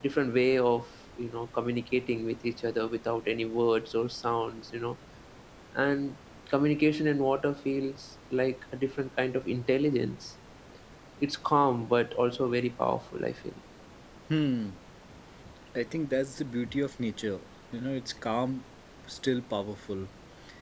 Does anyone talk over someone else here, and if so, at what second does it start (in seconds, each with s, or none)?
none